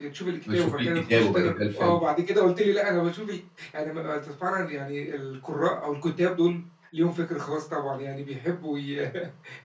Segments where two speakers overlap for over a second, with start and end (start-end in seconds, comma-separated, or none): 0.5-2.0